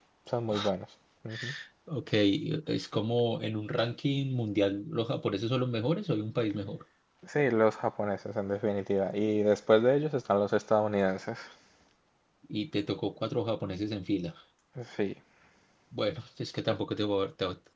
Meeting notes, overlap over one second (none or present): none